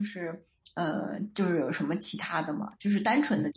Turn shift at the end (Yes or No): No